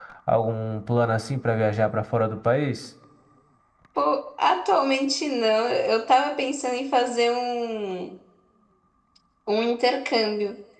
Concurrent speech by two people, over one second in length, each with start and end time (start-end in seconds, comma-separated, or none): none